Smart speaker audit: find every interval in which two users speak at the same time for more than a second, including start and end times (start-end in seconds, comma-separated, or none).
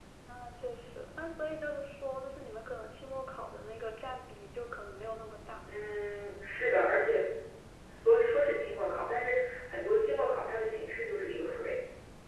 none